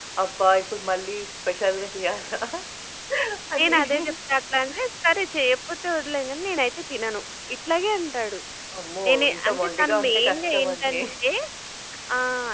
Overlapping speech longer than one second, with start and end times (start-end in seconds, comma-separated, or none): 9.1-11.0